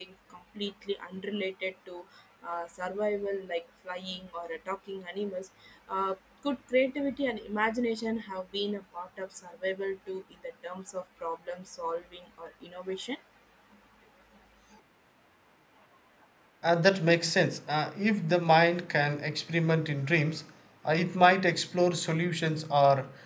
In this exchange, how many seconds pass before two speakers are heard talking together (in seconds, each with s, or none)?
none